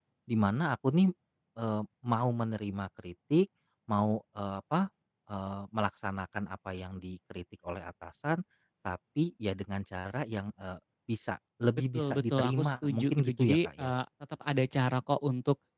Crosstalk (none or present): present